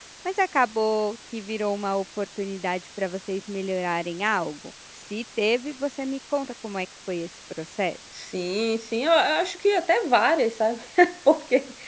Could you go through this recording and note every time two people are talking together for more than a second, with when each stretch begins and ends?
none

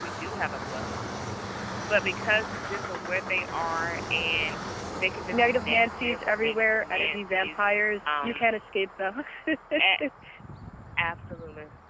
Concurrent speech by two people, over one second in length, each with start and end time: 5.3-7.6

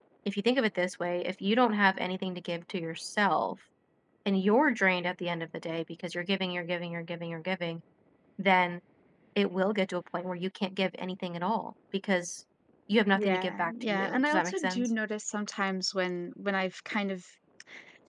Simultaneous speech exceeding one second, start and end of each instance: 13.2-14.9

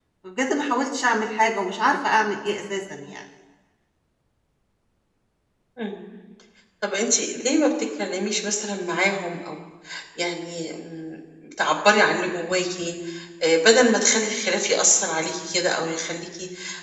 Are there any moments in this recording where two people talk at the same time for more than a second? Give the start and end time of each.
none

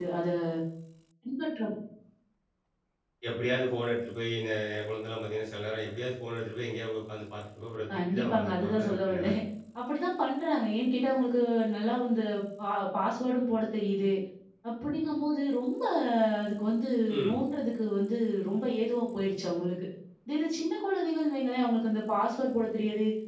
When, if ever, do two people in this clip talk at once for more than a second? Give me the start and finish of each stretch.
7.9-9.3

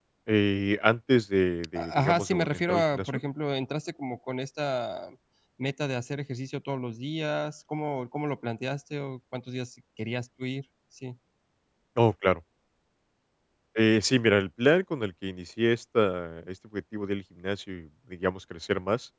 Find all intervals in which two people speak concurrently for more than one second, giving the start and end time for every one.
1.8-3.2

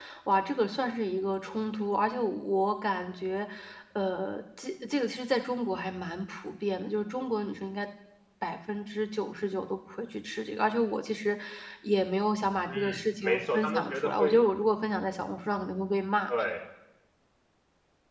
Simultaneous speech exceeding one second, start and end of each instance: 12.7-14.4

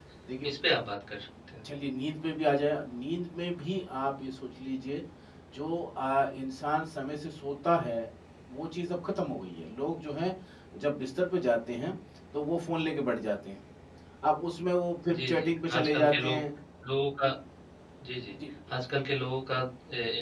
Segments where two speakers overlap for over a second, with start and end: 15.1-16.4

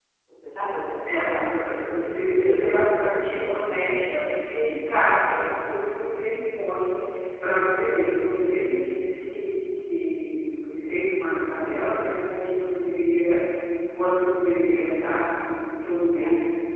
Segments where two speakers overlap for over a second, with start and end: 1.1-2.8

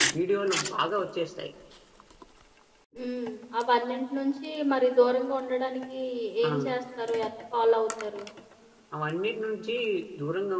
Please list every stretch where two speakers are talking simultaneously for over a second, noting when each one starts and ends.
none

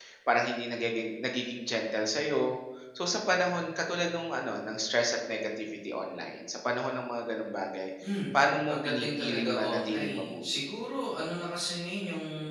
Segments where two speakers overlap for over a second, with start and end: 8.3-10.6

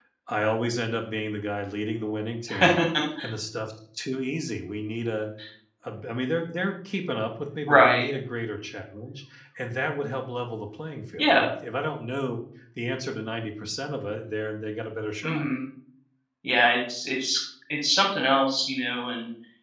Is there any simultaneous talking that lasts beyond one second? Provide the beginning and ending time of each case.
none

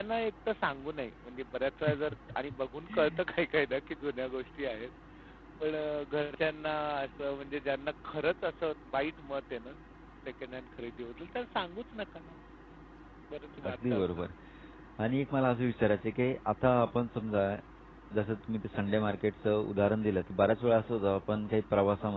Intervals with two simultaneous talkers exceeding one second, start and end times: none

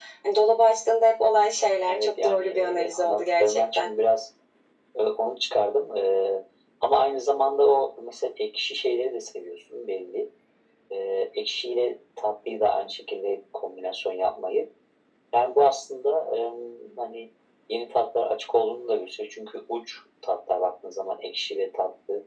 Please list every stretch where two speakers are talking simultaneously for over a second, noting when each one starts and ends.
1.9-3.9

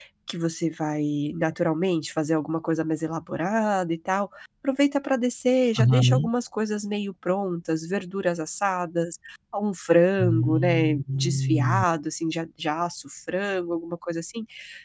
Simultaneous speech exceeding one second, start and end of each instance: 10.2-11.8

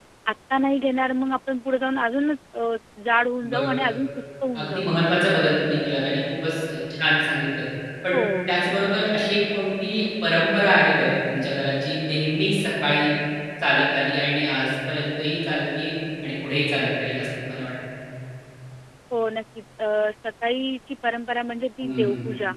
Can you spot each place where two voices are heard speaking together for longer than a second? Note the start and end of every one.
none

